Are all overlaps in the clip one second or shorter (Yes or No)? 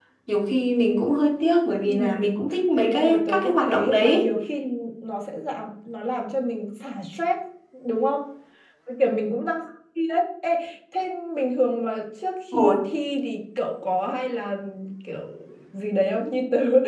No